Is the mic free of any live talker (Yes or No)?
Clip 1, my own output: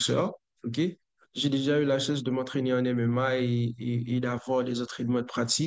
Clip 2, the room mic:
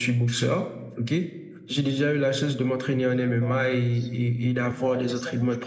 No